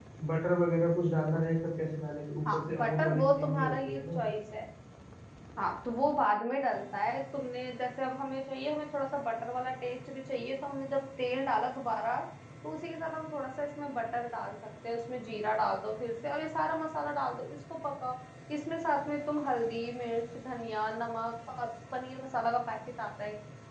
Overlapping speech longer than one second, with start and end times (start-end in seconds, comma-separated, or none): 2.5-4.2